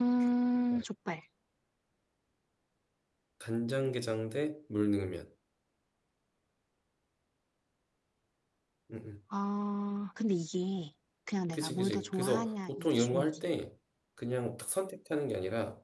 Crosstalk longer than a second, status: present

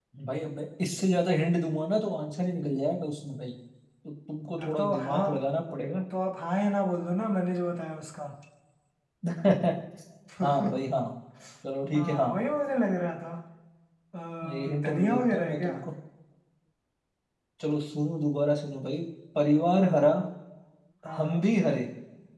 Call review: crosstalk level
present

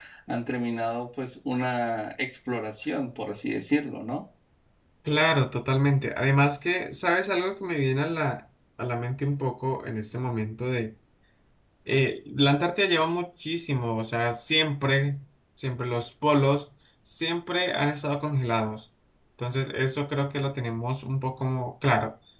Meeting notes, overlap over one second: none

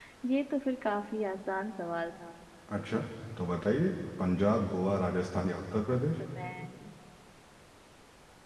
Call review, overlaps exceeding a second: none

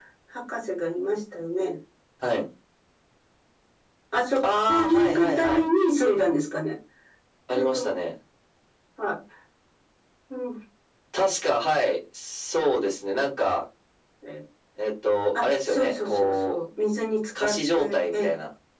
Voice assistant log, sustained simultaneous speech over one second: present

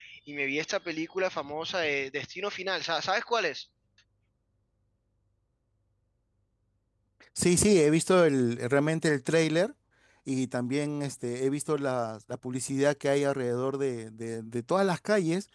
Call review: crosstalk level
none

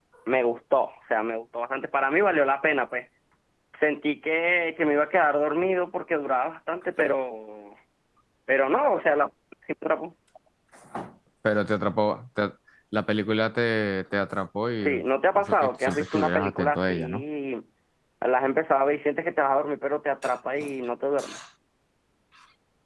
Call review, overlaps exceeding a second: present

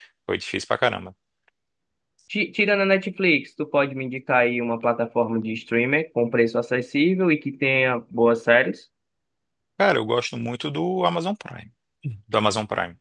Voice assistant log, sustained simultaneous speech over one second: none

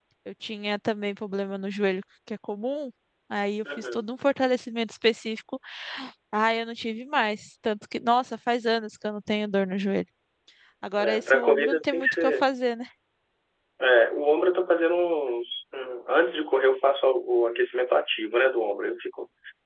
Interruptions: present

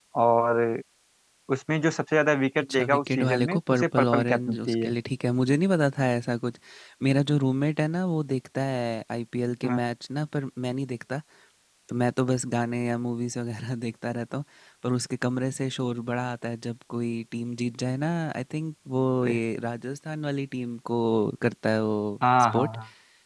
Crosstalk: present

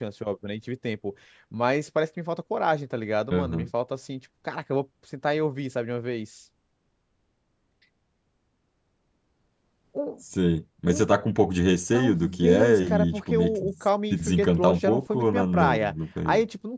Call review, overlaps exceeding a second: present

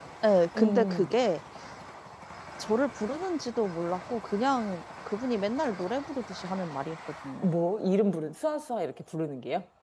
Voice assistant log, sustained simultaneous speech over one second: none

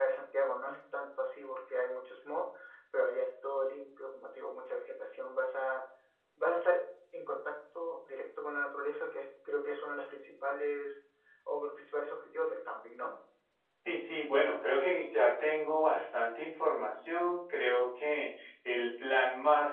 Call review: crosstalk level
none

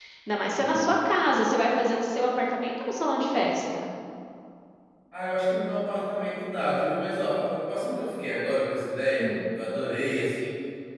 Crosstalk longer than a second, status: none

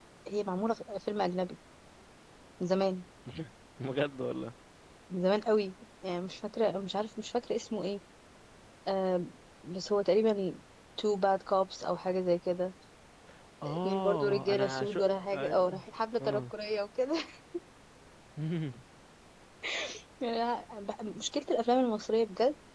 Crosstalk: present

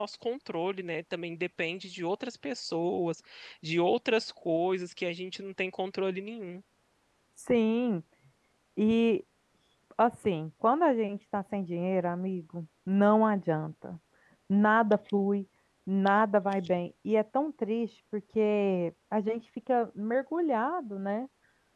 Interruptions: none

